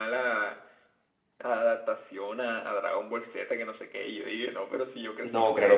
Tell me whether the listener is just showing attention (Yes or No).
No